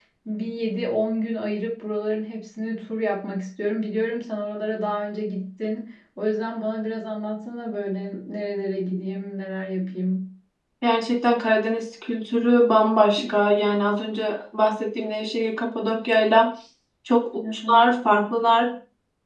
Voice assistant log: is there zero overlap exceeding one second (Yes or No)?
Yes